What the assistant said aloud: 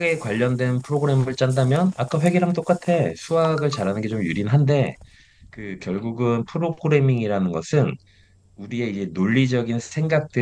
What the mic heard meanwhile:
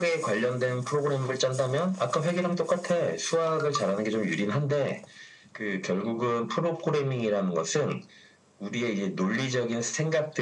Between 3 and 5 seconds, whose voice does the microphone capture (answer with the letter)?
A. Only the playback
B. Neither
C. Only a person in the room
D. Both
A